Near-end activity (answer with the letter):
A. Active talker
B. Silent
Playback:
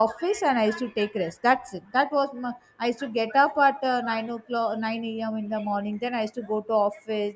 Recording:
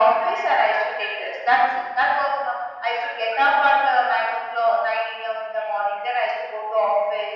B